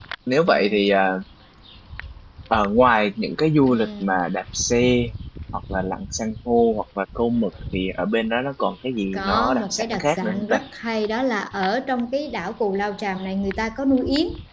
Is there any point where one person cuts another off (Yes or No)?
Yes